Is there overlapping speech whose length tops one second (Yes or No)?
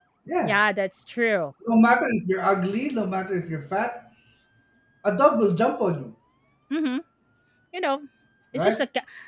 No